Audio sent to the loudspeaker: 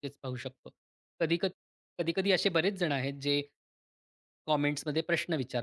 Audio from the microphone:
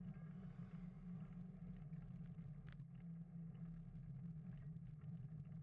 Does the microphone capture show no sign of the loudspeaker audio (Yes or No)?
Yes